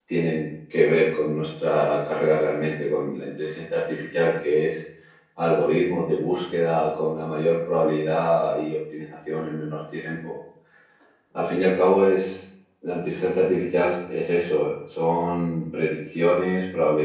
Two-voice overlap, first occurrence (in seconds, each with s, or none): none